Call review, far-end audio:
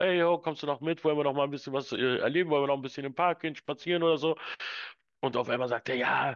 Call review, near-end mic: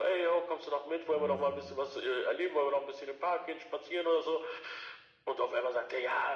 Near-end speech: present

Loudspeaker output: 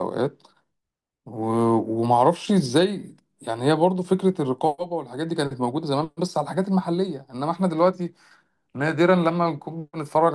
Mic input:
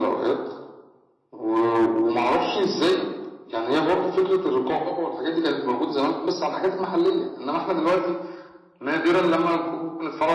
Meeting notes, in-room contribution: none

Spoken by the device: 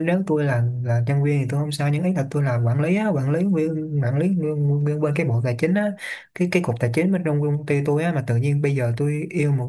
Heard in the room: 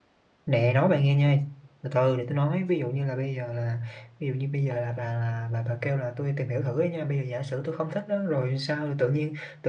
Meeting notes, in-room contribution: present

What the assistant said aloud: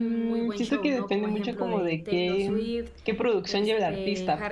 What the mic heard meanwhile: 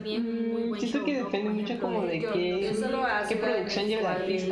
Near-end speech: present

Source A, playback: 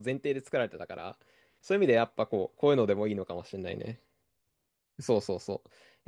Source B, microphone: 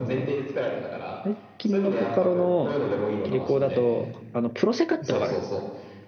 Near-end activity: present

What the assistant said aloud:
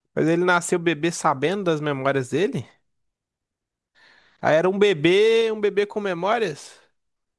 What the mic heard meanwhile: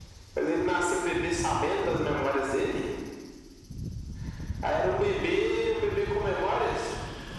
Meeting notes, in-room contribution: none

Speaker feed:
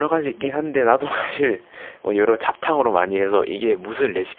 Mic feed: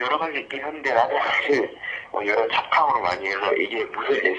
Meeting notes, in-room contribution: none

